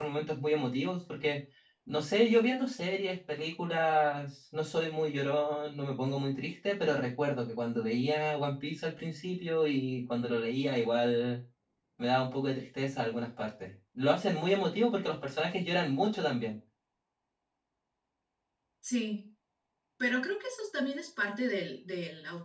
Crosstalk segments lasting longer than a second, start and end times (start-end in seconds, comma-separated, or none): none